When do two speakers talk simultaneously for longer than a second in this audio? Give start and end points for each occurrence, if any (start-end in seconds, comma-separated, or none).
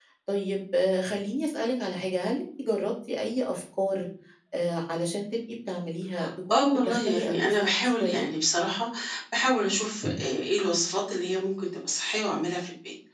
6.5-8.3